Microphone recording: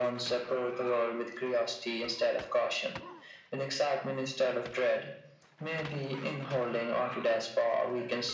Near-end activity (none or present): none